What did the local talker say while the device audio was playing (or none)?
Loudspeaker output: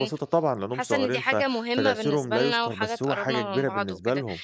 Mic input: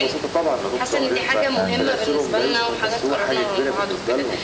فعلًا،